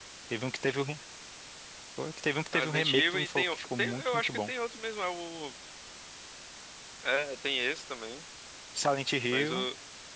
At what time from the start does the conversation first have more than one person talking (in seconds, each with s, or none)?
2.5 s